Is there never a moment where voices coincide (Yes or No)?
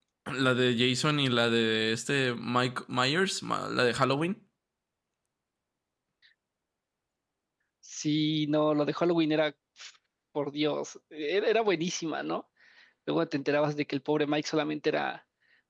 Yes